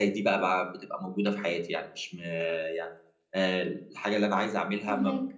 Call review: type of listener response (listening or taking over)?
listening